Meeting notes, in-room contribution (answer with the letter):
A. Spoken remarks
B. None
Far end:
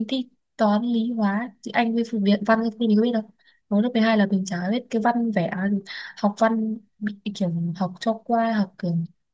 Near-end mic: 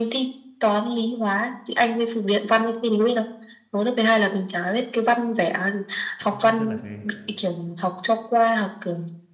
A